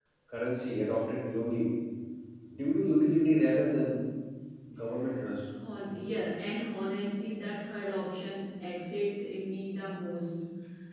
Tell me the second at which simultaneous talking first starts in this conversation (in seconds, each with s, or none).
none